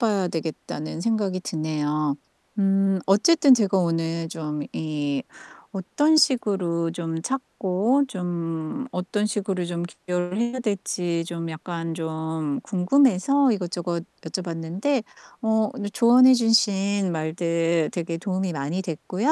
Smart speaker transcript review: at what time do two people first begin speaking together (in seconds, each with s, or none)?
none